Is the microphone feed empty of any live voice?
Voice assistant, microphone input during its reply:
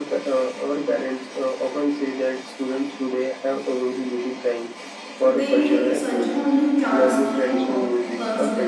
No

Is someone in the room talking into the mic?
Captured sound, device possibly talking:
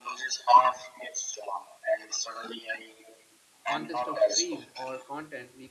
Yes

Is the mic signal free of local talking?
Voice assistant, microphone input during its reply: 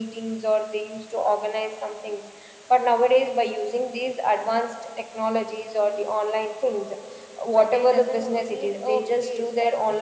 No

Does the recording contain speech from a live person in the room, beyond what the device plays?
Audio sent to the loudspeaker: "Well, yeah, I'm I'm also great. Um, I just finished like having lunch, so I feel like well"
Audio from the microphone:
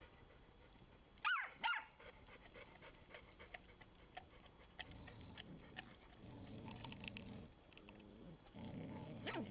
No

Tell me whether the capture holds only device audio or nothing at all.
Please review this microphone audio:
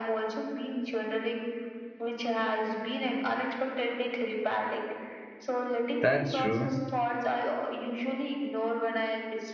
No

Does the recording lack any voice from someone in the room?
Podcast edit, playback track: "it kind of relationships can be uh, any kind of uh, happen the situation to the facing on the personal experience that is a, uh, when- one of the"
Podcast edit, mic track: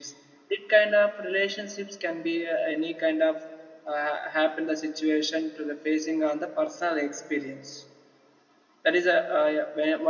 Yes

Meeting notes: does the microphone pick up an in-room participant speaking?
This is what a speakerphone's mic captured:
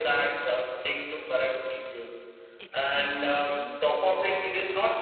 Yes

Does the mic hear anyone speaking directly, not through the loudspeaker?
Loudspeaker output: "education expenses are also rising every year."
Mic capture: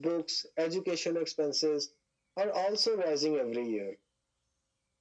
No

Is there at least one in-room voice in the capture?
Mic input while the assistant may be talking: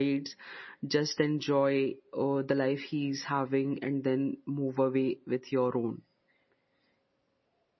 Yes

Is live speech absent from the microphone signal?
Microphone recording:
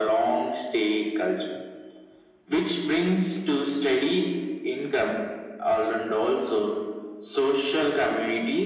Yes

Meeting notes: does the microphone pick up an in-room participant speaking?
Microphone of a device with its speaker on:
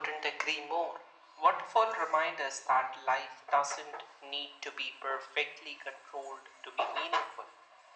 No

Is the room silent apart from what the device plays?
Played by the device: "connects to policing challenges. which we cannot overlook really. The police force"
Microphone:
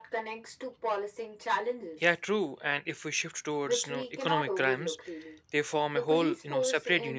No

